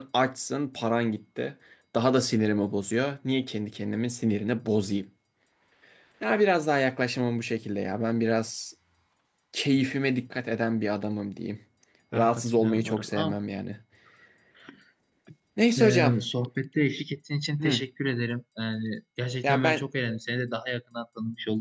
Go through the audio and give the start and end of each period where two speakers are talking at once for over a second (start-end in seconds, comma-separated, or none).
12.1-13.4